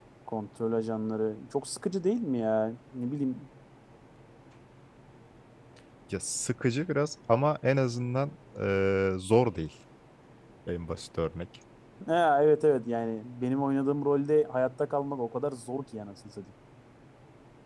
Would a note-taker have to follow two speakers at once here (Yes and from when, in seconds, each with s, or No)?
No